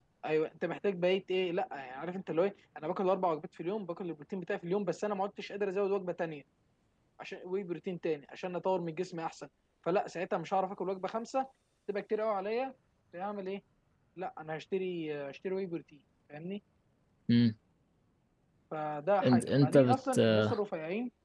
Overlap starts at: 19.2 s

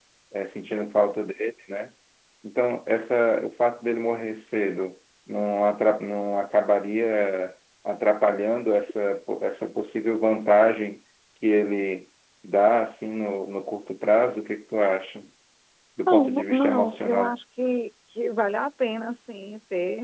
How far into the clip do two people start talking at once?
16.1 s

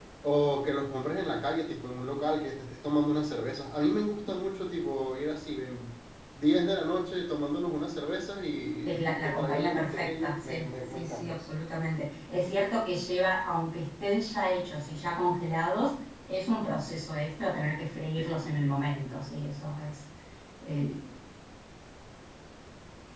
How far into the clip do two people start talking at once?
8.8 s

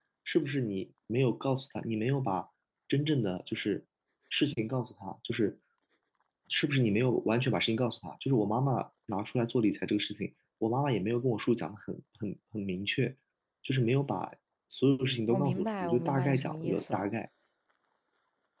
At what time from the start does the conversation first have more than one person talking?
15.3 s

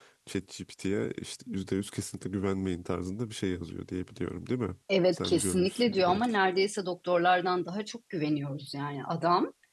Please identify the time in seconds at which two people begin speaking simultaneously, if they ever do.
4.9 s

